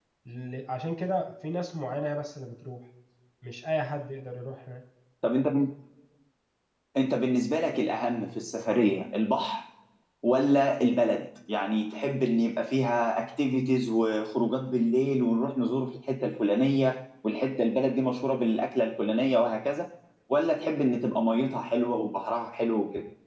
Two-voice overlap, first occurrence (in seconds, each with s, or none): none